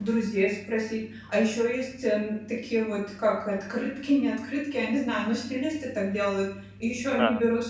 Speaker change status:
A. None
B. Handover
A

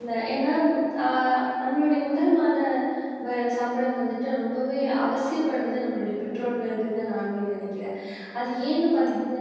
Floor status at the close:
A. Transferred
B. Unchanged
B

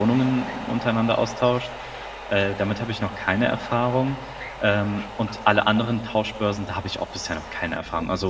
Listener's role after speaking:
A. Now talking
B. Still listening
B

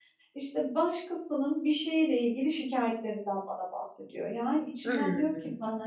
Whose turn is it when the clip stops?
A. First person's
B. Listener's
A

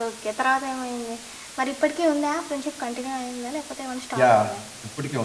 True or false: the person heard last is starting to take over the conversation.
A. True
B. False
A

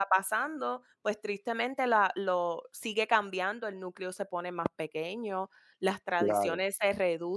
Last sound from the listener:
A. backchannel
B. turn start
A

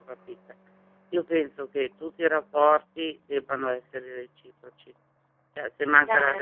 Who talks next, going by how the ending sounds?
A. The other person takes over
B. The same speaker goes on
B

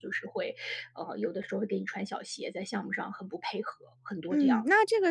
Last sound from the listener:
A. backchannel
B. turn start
B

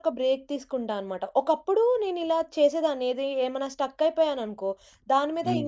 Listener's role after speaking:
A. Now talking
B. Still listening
B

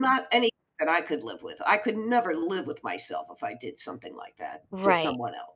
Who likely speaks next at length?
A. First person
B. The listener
B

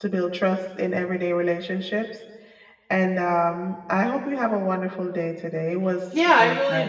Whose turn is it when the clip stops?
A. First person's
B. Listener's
B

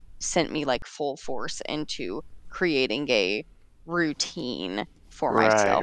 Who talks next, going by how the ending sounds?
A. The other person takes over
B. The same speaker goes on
A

